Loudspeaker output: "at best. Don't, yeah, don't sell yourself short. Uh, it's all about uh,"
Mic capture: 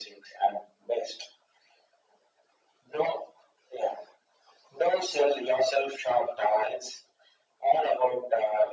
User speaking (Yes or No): No